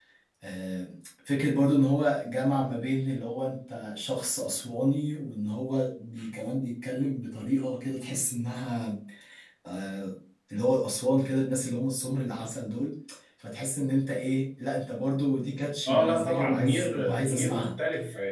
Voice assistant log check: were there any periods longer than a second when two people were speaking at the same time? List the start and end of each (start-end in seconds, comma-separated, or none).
15.9-17.7